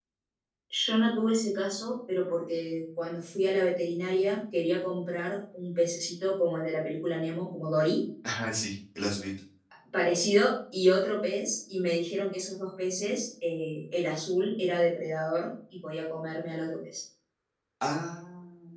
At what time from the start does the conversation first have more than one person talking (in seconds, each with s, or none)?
none